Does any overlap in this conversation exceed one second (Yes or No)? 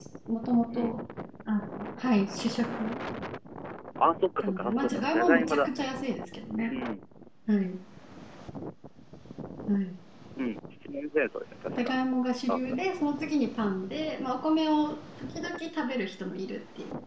Yes